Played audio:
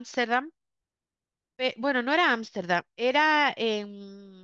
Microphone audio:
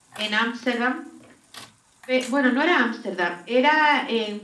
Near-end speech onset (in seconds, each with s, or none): none